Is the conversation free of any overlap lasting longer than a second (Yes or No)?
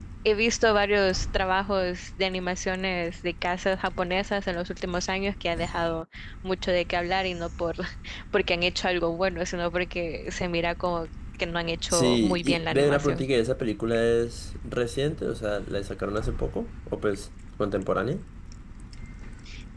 No